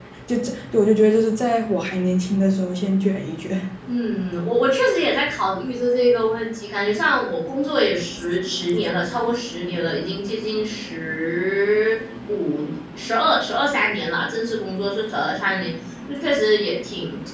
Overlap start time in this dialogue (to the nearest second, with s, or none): none